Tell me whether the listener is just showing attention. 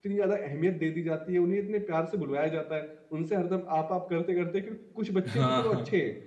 Yes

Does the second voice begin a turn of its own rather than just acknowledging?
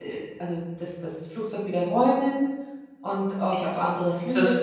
Yes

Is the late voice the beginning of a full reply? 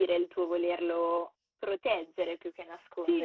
Yes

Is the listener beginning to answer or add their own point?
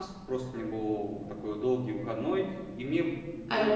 No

